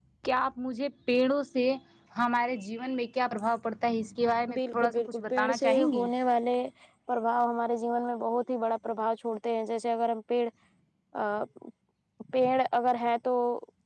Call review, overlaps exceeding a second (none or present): present